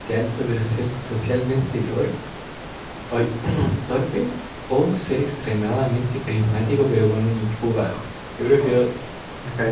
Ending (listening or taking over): taking over